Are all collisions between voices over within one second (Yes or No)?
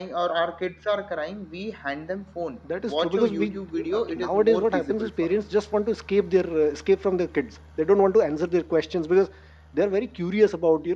No